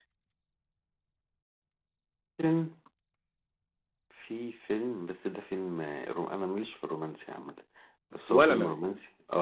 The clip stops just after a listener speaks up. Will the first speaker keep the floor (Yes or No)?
Yes